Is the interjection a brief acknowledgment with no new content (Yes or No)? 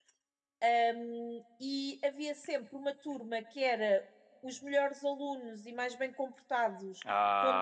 Yes